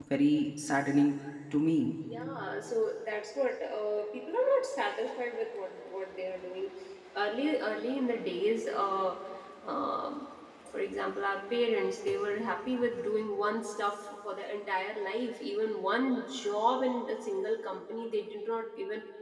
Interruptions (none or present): none